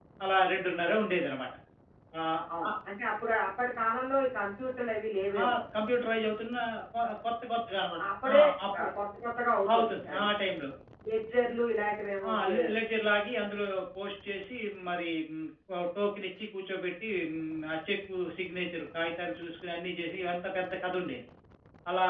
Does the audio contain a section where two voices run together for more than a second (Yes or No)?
No